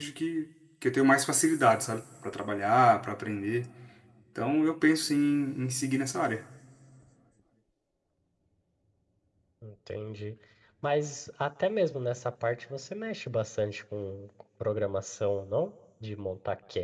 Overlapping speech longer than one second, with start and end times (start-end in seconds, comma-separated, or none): none